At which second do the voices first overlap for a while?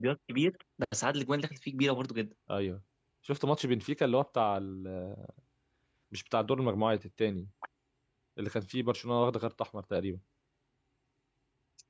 none

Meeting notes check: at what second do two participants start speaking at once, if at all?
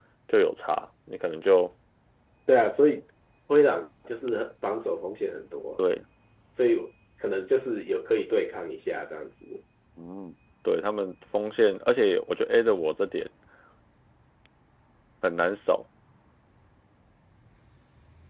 none

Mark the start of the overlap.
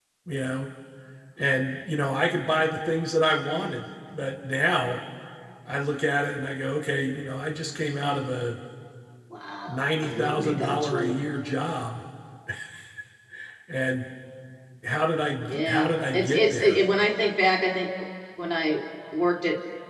9.7 s

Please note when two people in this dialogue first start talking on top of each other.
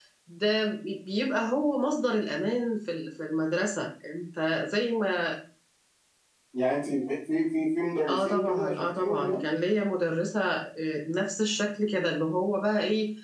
8.1 s

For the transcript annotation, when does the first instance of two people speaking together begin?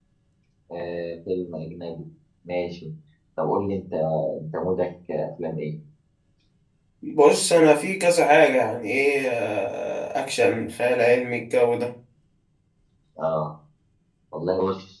none

